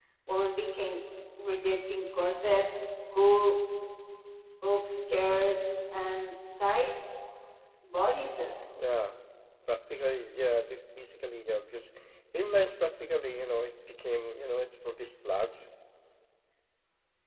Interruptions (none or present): none